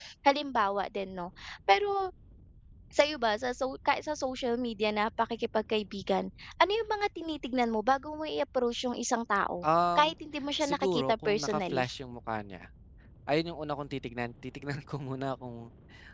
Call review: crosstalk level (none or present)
present